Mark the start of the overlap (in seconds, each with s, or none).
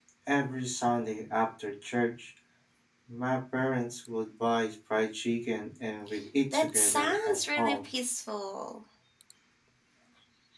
6.5 s